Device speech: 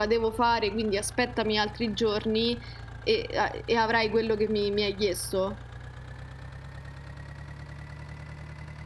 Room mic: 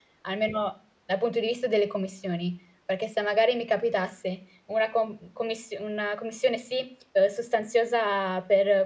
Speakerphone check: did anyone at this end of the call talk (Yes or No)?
Yes